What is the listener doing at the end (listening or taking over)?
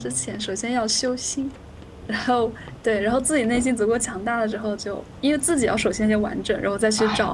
taking over